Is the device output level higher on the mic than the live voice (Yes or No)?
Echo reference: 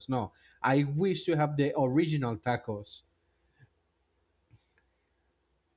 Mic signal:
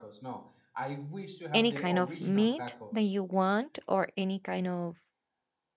No